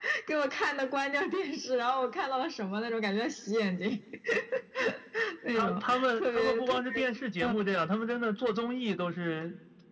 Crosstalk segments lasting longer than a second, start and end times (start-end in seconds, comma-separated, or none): 5.5-6.8